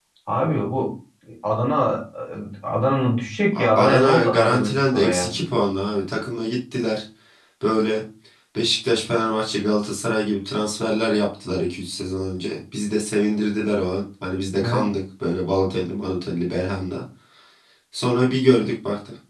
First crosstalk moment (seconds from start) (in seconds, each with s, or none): 3.5 s